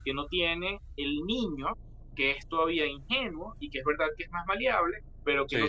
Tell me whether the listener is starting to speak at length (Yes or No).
No